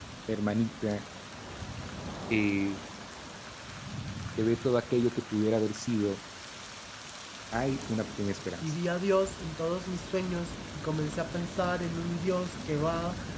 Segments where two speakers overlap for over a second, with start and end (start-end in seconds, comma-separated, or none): none